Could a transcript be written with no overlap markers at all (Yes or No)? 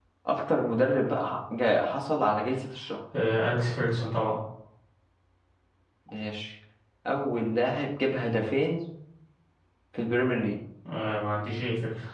Yes